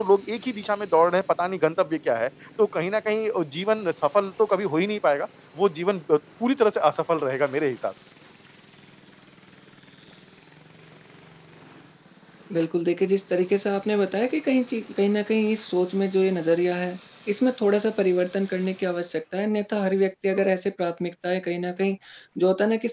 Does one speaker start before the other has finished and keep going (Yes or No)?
No